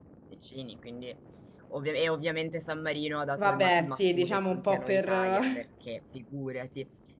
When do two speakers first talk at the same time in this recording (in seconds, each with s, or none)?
3.4 s